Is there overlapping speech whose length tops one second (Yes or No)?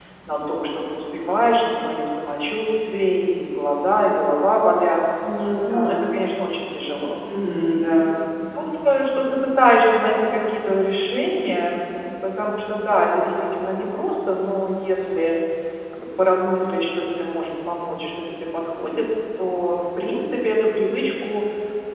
No